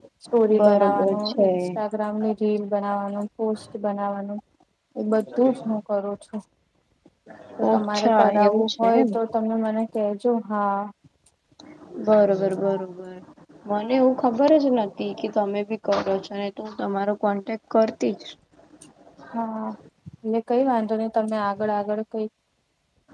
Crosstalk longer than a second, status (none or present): present